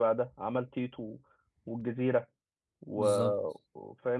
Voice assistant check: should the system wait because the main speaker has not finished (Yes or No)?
Yes